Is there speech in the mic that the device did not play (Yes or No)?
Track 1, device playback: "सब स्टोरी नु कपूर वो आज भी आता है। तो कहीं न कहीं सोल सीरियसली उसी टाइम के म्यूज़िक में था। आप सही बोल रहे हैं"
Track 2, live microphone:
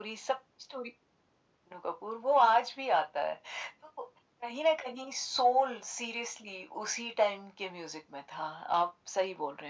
No